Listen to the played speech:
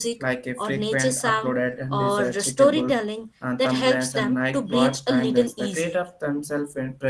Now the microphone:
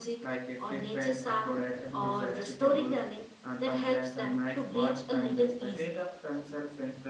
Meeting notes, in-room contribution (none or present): none